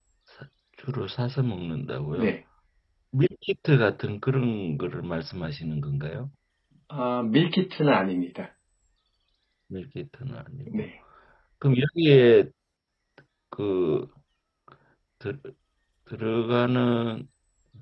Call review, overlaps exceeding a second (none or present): none